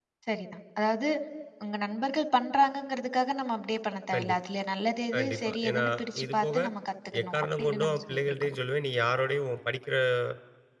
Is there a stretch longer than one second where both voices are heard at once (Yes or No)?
Yes